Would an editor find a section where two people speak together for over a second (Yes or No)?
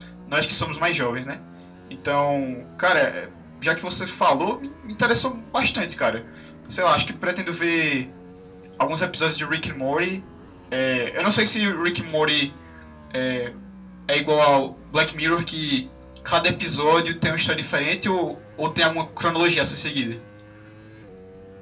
No